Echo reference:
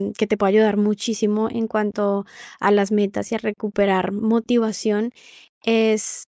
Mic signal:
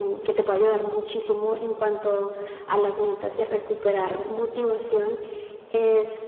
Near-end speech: none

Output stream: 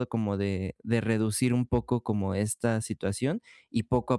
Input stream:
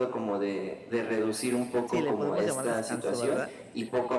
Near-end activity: present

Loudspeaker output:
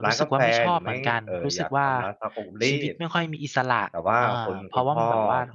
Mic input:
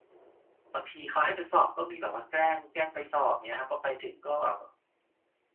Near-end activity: present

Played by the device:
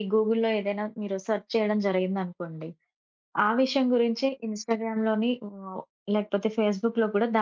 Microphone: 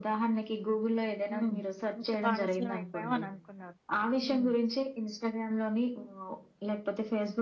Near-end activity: present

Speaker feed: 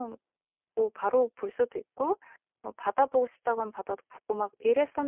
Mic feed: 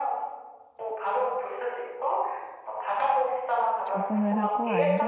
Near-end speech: present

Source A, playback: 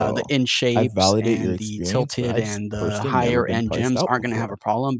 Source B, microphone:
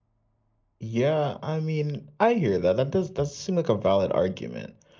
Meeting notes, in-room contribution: present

